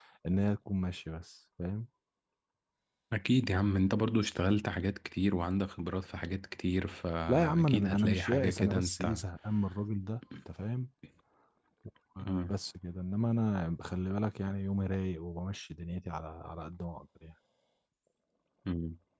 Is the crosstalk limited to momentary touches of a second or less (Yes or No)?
No